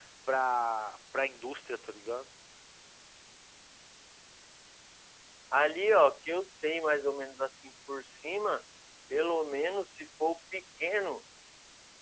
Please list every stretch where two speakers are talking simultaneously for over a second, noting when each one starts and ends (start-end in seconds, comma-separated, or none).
none